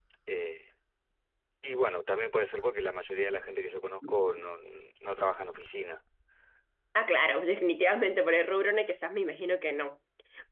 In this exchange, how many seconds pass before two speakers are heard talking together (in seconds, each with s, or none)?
none